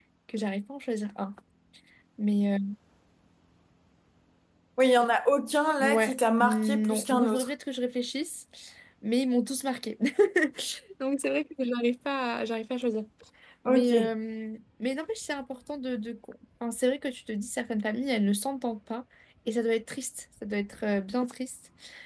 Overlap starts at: 5.8 s

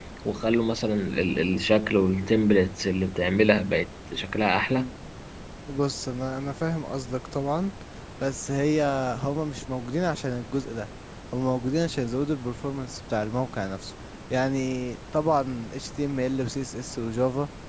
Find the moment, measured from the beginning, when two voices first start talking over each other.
none

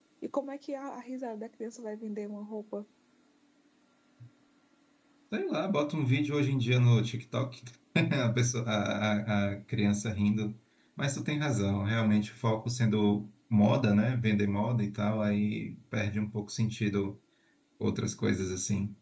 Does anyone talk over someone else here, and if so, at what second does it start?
none

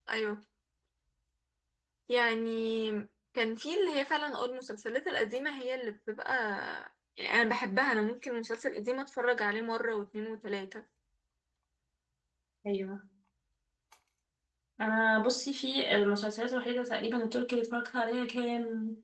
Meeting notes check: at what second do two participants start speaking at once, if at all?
none

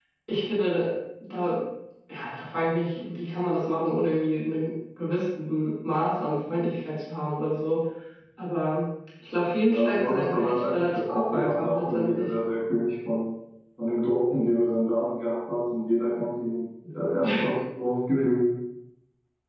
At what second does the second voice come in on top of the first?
9.7 s

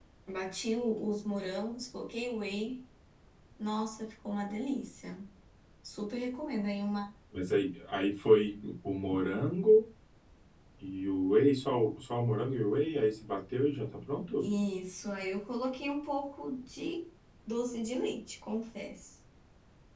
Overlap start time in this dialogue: none

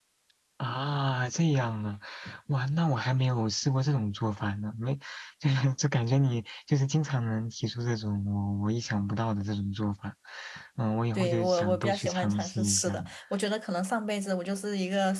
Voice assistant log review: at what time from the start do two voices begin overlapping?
11.2 s

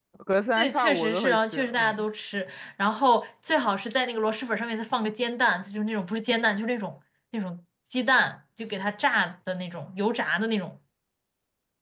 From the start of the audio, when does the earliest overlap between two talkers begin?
0.6 s

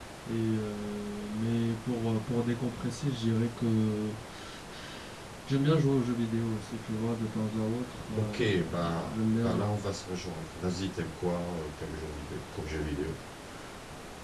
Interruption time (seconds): 8.2 s

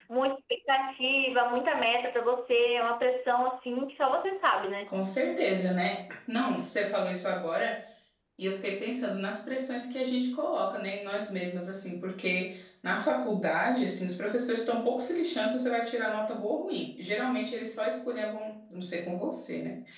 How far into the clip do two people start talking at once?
none

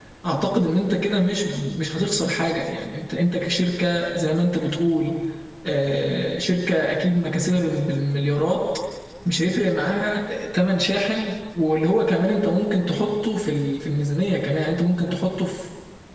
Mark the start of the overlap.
none

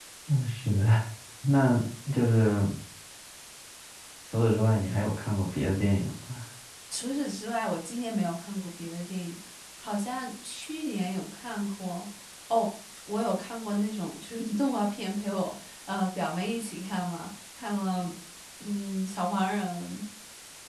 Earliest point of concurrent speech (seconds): none

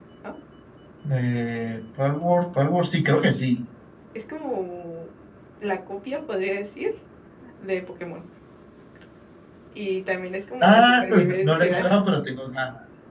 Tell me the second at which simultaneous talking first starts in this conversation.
10.6 s

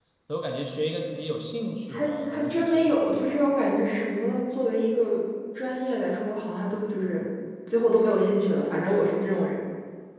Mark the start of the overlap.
1.9 s

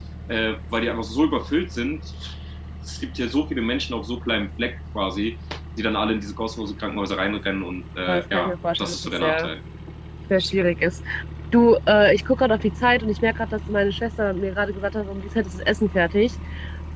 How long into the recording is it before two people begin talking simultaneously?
8.1 s

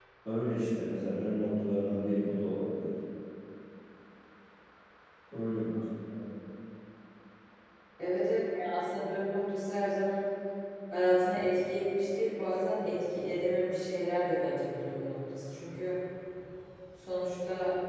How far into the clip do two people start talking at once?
none

